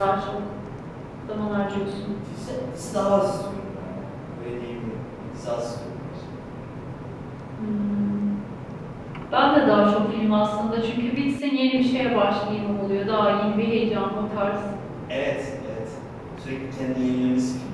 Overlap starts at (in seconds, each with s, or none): none